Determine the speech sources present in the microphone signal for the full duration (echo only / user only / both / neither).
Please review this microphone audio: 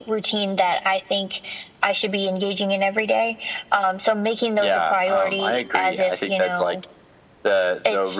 echo only